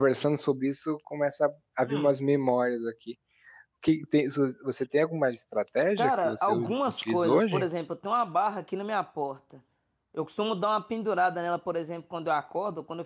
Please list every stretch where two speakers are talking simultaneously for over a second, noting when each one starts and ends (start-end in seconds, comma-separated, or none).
6.0-7.6